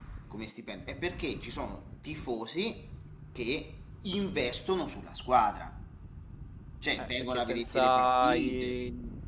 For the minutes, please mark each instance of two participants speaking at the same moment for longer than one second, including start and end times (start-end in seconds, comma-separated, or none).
7.0-8.8